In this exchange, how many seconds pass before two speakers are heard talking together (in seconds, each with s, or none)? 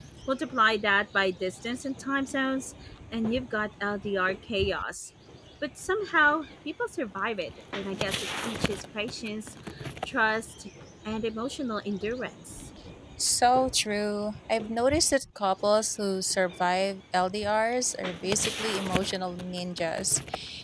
none